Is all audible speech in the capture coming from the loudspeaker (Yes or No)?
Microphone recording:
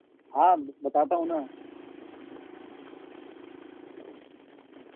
No